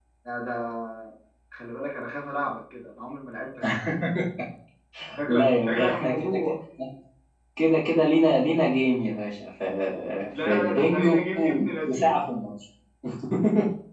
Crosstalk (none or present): present